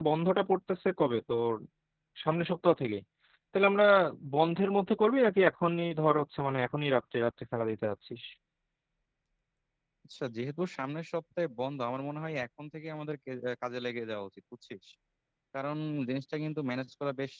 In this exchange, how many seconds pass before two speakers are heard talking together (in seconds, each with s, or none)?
none